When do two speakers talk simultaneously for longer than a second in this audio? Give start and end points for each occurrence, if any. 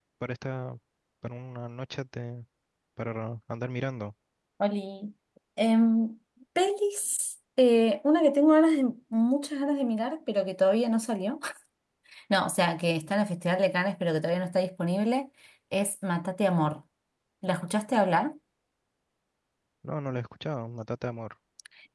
none

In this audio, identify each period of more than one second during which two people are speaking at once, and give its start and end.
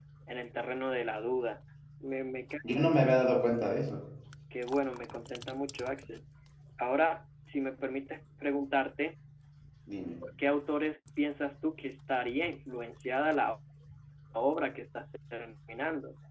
none

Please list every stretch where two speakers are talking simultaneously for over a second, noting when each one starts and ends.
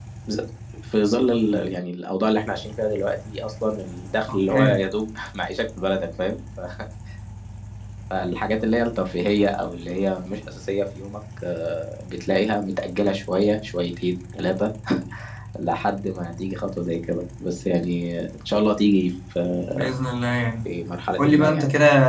none

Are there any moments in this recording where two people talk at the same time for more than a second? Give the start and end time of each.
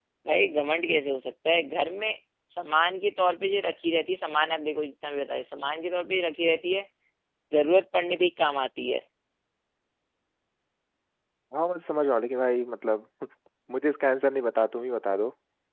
none

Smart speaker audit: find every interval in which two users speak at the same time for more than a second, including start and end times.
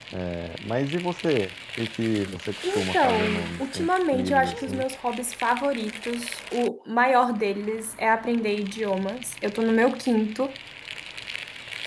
2.7-4.8

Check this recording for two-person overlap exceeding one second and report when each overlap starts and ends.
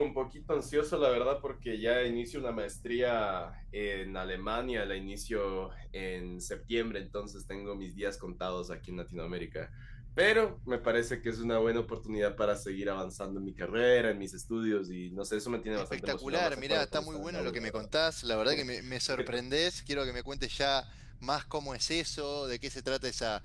15.7-17.9

